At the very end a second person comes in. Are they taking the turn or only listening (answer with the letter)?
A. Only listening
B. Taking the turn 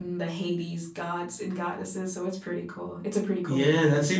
B